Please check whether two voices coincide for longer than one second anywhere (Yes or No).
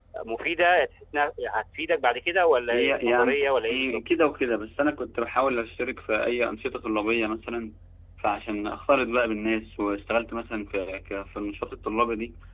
Yes